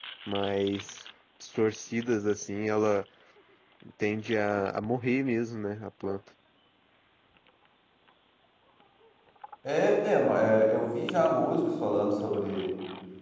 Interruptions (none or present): none